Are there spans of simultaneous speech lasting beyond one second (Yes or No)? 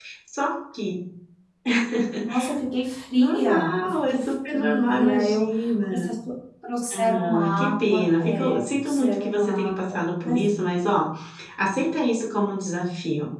Yes